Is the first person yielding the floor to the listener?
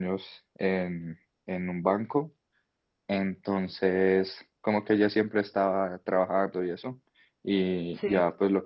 No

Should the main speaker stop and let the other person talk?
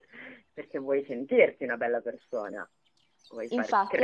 Yes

